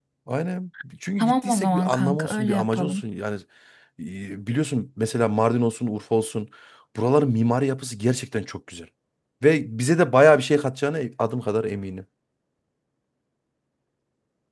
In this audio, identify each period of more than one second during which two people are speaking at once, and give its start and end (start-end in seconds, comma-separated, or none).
1.2-3.0